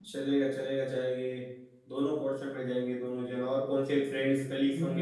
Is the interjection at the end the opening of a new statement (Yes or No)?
Yes